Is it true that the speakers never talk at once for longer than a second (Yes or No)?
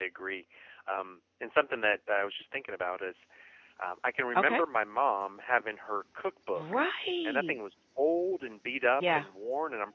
Yes